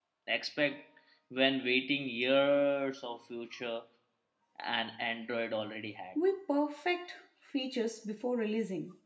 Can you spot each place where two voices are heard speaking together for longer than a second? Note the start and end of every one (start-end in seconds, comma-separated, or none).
none